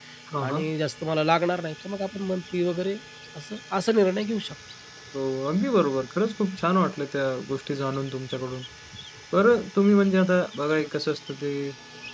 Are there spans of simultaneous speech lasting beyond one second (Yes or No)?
No